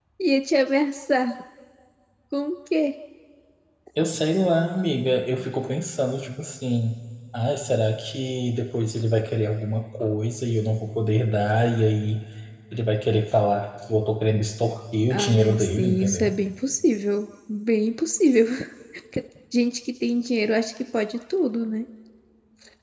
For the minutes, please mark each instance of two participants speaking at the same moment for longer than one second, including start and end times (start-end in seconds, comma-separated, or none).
15.1-16.3